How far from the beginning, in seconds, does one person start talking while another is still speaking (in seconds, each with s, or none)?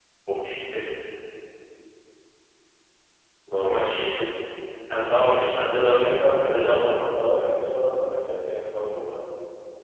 5.8 s